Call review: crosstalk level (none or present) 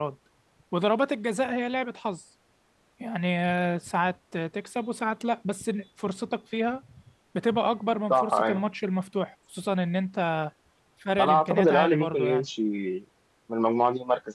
present